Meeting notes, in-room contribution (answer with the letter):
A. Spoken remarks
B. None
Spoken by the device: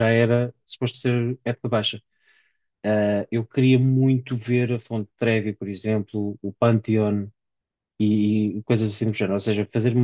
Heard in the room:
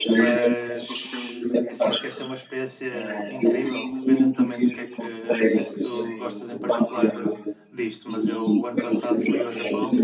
A